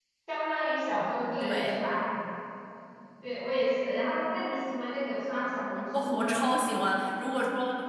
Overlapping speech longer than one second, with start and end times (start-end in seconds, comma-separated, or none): none